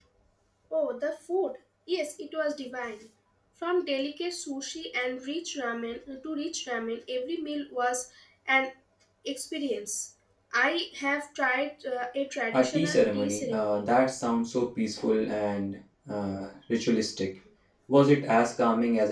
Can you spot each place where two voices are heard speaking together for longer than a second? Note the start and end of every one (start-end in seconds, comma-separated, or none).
12.5-13.8